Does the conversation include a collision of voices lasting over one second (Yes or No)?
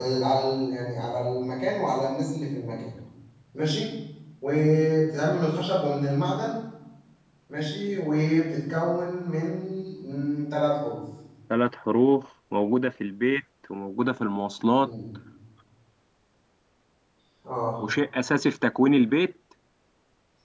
No